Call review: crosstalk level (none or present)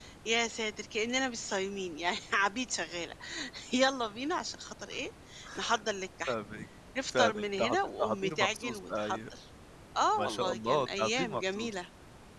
present